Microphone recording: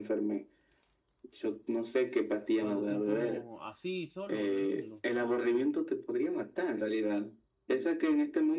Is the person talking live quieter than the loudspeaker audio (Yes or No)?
Yes